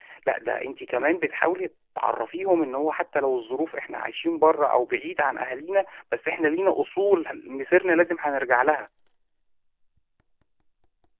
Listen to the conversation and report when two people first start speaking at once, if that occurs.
none

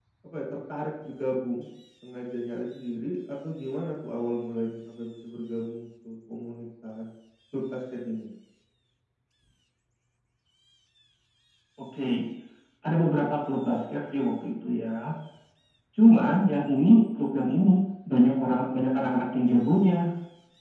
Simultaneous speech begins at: none

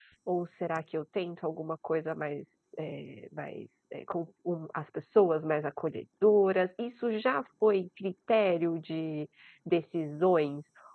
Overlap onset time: none

